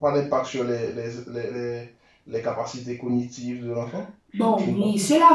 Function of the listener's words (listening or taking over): taking over